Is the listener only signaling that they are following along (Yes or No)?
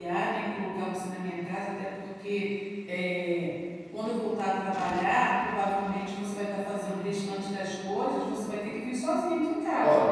No